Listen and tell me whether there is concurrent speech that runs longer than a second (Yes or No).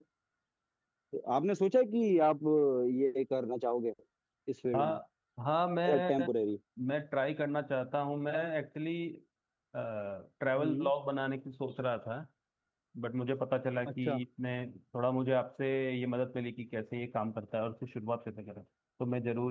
No